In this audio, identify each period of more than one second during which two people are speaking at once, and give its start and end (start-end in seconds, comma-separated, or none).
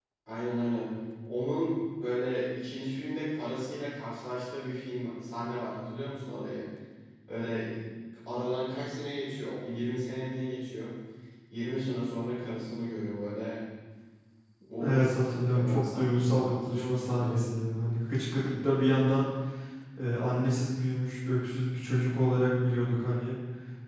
14.8-17.4